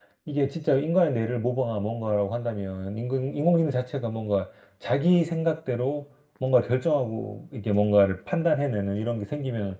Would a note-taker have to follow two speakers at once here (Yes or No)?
No